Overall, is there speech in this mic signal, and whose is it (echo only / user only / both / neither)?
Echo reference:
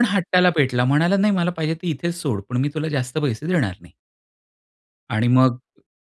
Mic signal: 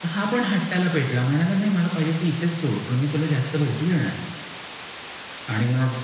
echo only